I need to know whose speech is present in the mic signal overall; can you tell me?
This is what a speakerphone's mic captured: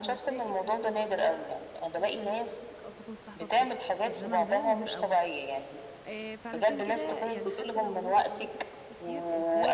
both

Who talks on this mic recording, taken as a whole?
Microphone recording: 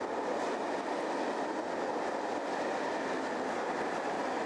neither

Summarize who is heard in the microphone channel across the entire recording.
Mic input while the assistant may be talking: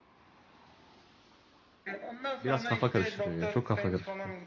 both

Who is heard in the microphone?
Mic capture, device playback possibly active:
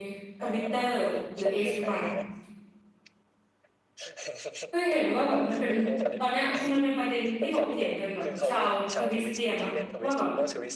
both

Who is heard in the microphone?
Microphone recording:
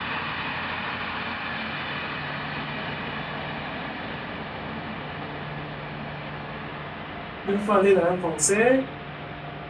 user only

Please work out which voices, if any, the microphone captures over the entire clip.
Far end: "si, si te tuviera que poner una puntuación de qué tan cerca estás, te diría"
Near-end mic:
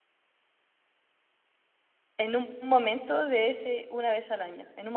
user only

